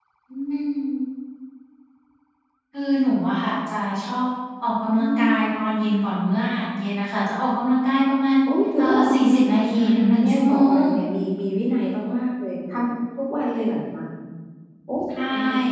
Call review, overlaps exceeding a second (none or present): present